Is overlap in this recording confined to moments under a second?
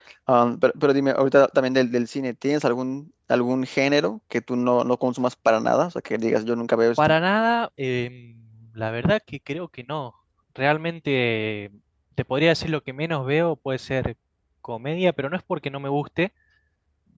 Yes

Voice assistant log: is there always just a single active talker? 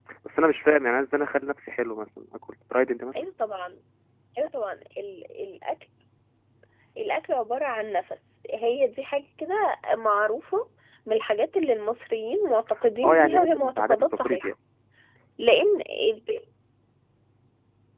No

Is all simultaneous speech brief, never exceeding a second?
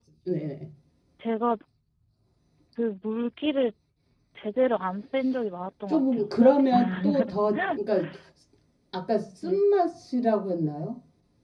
No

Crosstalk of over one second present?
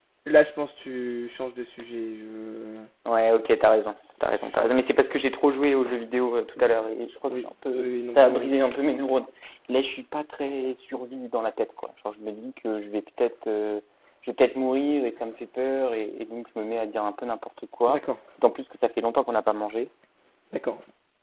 Yes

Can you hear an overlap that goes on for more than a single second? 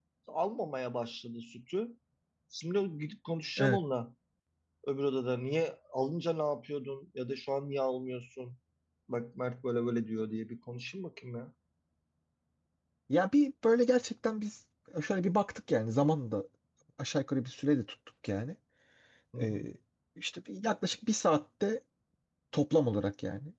No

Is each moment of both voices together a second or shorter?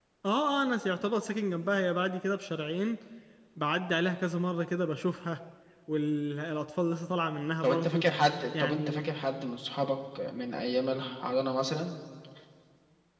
Yes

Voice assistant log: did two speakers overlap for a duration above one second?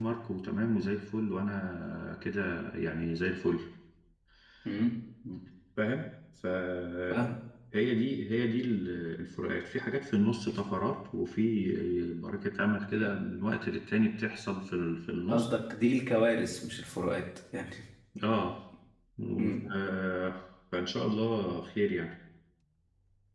No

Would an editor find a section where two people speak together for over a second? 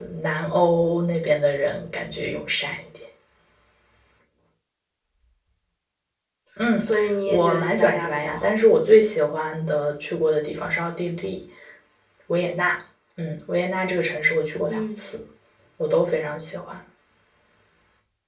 Yes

